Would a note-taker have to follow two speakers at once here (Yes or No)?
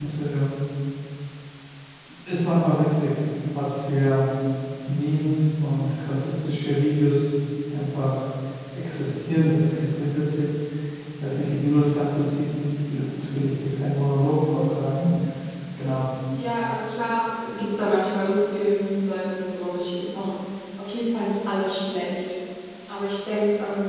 No